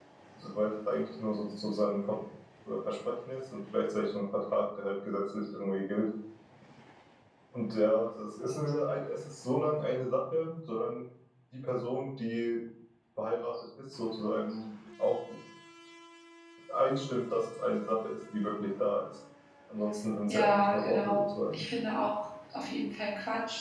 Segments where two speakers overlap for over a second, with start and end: 20.3-21.6

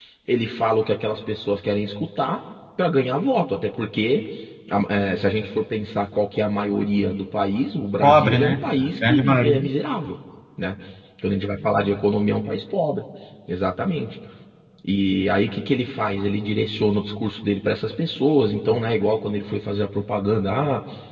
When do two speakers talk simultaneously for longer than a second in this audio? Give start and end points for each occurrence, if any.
8.0-9.7

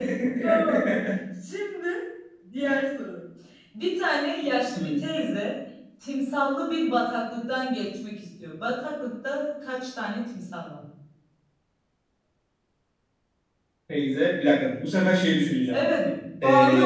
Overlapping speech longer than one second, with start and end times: none

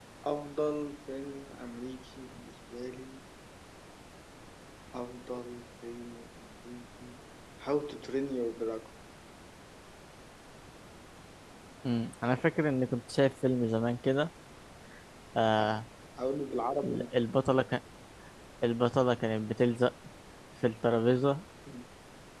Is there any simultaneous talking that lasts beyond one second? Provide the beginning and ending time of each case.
none

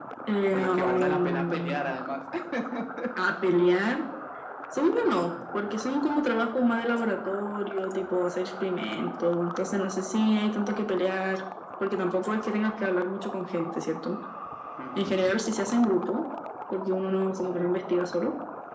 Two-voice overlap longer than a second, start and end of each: 0.5-1.8

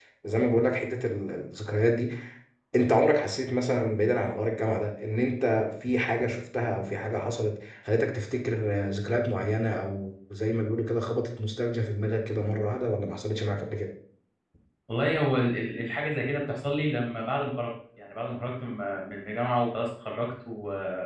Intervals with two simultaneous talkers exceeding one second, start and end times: none

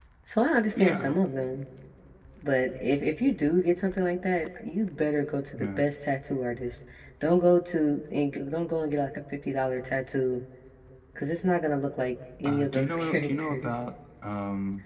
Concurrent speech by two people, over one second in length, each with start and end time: 12.4-13.8

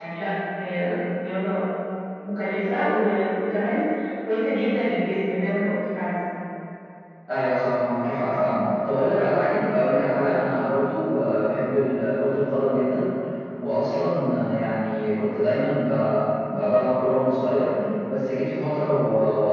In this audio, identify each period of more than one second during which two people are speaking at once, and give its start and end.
none

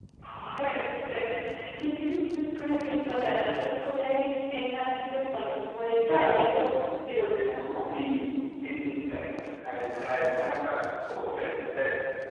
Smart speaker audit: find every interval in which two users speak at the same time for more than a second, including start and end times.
none

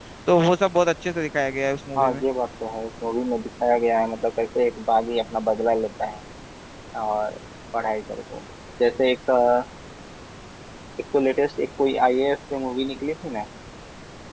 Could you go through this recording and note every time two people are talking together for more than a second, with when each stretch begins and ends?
none

